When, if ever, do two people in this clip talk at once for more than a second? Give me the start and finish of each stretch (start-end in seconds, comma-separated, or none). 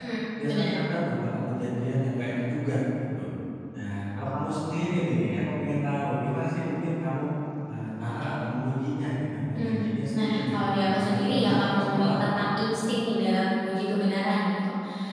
9.6-12.4